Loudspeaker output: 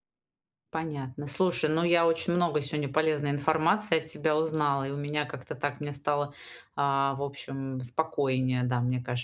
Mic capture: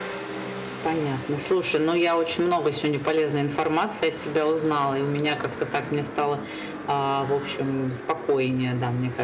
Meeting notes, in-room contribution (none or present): none